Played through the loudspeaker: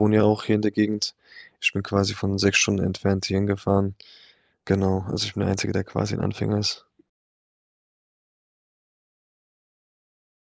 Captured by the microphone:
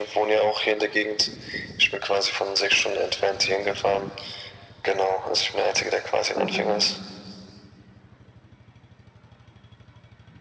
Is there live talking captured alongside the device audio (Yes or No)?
Yes